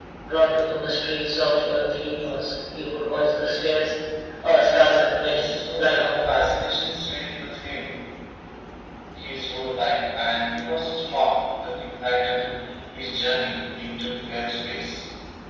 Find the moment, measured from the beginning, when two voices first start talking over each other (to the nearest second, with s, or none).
5 s